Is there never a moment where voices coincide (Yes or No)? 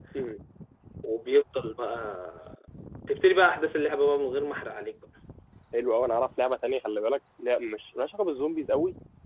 Yes